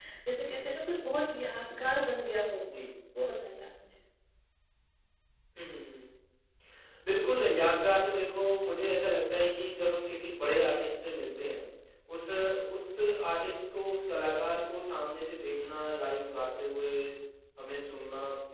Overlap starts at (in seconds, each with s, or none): none